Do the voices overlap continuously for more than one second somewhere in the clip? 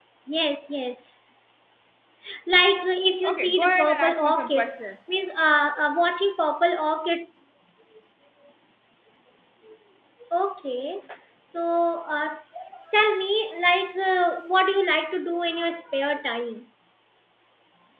Yes, from 3.2 s

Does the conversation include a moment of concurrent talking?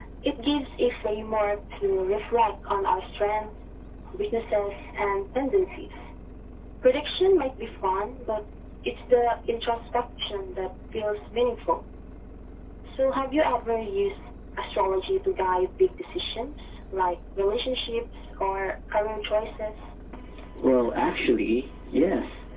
No

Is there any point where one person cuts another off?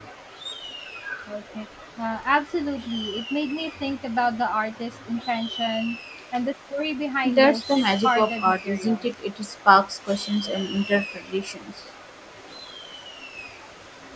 Yes, from 7.2 s

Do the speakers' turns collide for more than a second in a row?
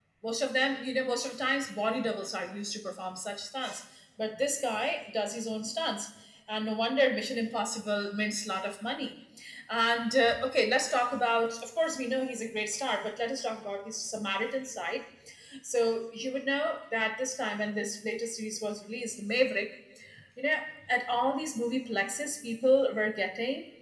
No

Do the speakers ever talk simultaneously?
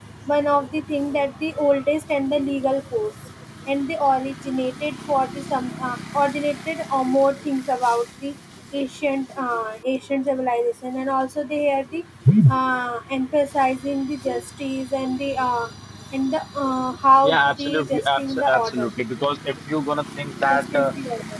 Yes, from 17.2 s

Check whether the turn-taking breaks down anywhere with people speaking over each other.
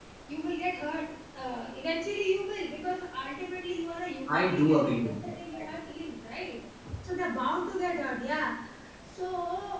Yes, from 4.3 s

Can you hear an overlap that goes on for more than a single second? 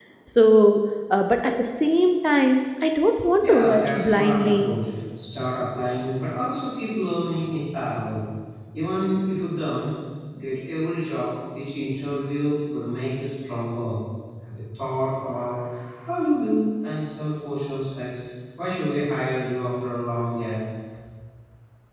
Yes, from 3.4 s

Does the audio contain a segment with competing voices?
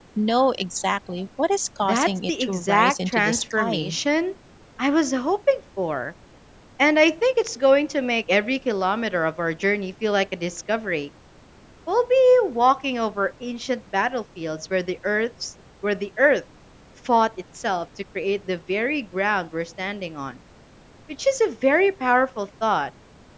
Yes, from 1.8 s

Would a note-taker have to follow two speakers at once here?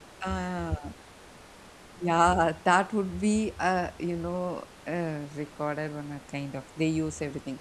No

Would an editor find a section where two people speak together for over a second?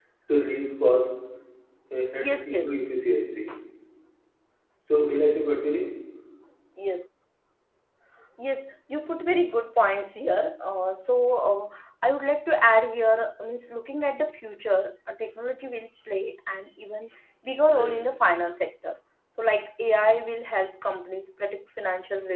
No

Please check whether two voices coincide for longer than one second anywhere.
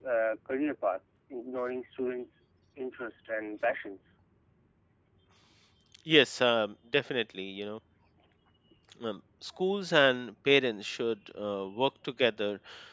No

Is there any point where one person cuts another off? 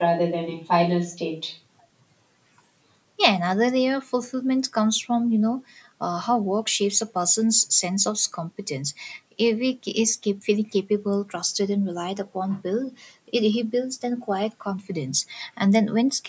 No

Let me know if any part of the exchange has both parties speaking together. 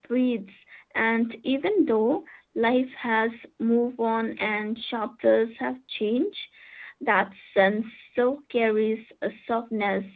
No

